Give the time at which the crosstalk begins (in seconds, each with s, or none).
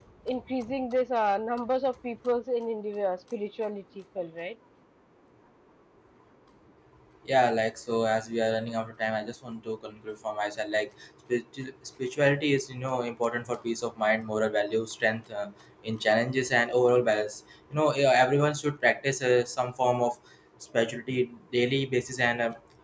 none